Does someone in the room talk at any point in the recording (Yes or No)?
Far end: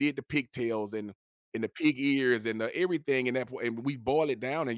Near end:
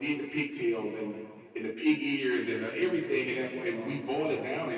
Yes